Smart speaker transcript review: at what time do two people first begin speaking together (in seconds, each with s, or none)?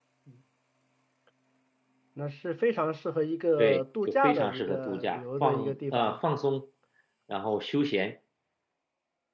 3.6 s